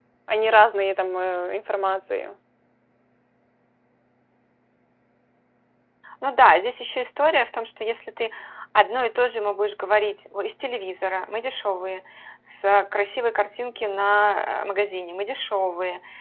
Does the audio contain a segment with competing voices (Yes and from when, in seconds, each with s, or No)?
No